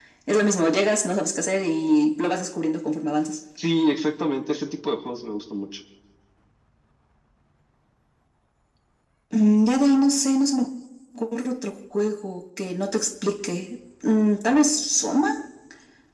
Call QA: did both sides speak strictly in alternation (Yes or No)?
Yes